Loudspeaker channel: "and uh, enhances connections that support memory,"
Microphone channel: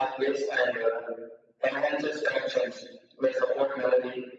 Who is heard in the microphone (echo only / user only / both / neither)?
echo only